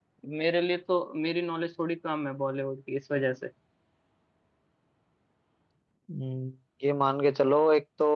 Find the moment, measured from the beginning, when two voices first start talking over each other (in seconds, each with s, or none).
none